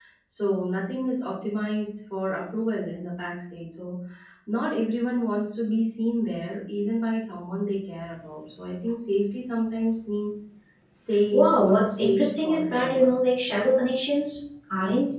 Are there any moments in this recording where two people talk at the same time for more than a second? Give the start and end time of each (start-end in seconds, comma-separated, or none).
11.3-13.1